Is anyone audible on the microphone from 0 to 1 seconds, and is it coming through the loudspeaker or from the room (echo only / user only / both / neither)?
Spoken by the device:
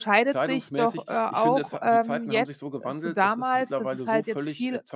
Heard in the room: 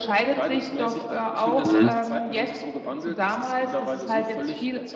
echo only